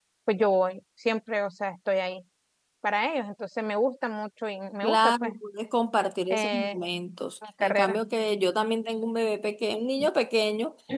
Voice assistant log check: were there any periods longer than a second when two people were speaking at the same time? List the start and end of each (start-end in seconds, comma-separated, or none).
none